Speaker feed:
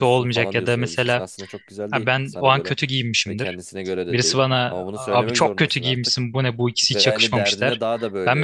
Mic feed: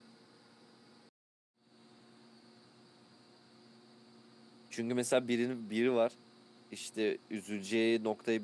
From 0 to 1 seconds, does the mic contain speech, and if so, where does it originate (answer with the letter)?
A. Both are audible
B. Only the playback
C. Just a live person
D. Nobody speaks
D